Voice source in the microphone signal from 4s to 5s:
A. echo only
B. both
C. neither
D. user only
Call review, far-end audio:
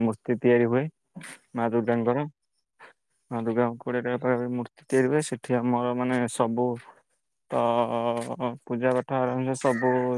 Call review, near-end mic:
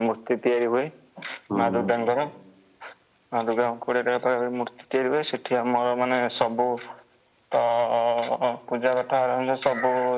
A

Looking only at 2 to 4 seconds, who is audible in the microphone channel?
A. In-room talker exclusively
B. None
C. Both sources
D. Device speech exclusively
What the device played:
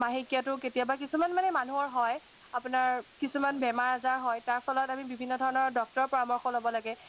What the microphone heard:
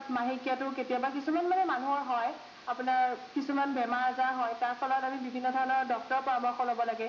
D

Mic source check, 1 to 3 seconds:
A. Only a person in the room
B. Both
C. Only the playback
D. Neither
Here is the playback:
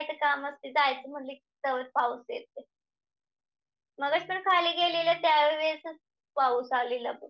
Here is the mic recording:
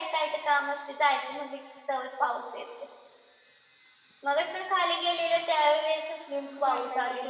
C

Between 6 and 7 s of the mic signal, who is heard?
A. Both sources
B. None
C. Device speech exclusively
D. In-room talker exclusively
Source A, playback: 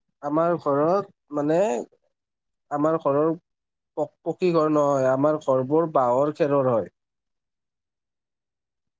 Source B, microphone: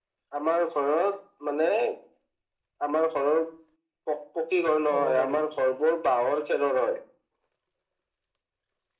C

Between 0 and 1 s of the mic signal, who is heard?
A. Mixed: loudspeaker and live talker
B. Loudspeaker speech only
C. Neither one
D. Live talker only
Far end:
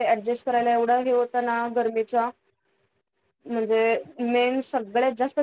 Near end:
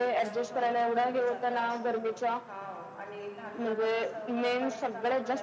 A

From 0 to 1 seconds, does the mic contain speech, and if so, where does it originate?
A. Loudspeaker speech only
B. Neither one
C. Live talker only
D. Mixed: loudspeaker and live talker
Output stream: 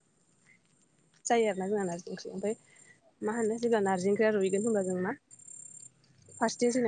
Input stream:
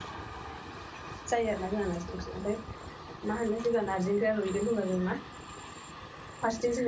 B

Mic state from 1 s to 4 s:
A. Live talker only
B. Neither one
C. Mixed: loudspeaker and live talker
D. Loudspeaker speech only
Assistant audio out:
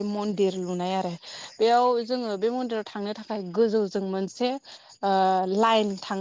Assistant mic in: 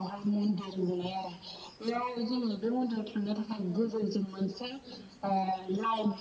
D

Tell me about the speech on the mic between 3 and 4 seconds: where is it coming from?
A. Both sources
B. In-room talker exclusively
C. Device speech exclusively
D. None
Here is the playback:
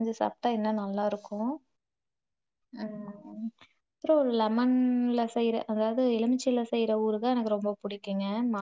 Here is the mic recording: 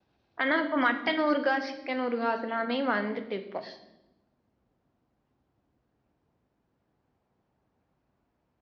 B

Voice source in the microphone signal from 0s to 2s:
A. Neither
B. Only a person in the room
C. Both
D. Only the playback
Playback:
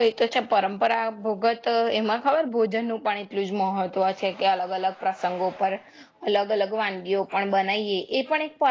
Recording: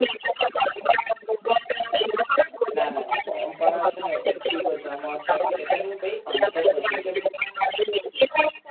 D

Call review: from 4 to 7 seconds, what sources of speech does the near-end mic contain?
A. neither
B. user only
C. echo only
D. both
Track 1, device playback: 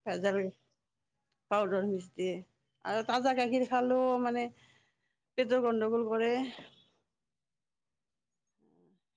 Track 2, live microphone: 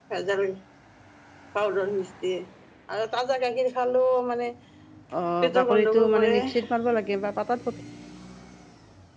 D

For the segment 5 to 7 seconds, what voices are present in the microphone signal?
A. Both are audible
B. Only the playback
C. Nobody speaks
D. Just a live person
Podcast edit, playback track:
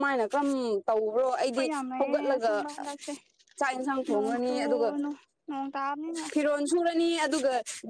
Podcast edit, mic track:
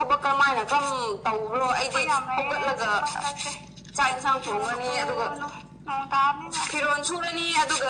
B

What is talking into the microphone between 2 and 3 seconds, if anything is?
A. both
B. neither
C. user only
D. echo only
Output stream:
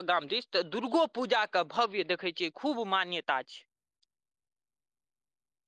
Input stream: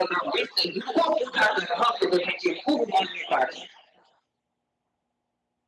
D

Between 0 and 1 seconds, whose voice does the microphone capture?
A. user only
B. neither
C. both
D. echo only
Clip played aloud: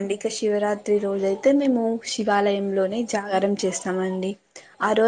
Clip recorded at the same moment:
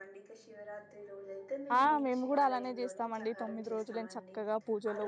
D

